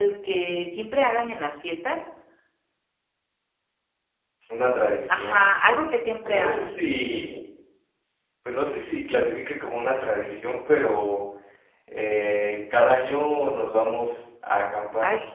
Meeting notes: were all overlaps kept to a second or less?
Yes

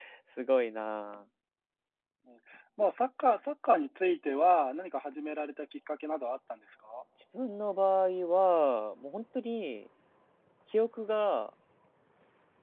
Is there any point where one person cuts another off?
No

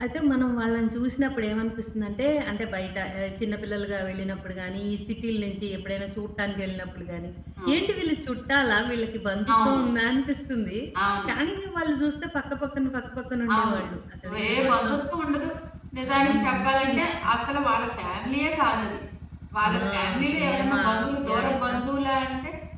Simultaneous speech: Yes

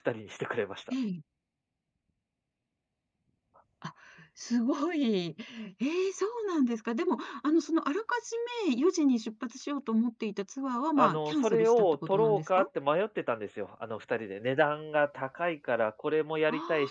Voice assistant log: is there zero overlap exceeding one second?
No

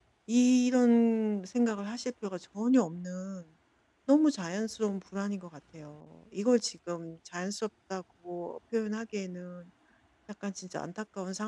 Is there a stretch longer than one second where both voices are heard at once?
No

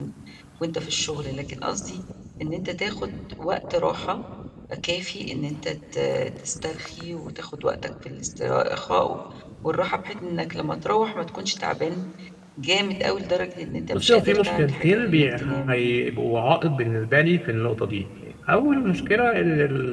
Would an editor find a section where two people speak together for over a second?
Yes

